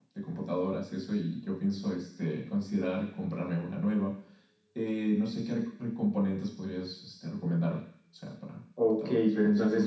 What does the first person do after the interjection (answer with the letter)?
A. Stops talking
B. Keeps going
A